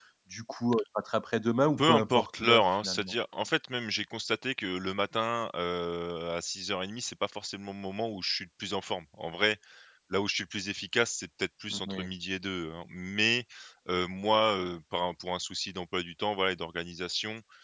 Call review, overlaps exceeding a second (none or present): present